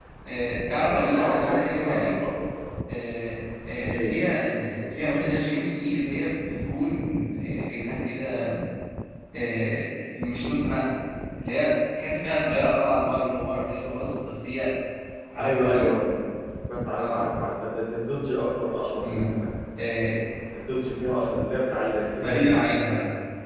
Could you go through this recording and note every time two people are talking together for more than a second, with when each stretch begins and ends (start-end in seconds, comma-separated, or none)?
0.9-2.1